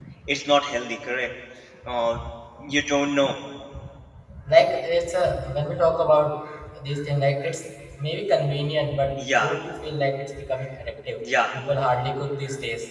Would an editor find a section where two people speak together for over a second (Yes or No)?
No